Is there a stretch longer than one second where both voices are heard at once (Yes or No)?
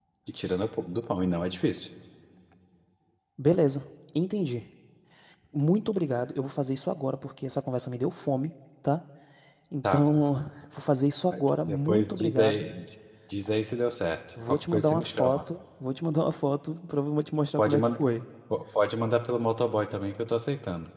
Yes